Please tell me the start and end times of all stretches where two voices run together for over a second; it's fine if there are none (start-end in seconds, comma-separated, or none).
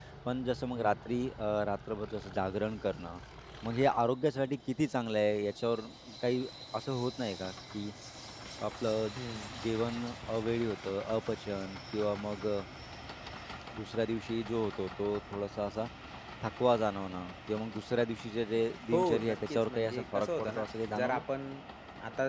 18.9-21.2